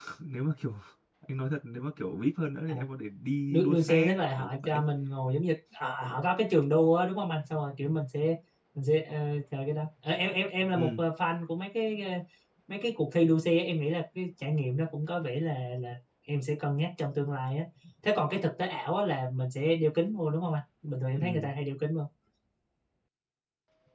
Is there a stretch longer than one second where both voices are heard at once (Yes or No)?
Yes